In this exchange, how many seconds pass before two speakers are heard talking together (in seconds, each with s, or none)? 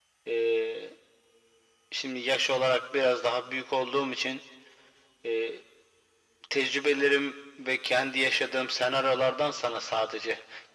none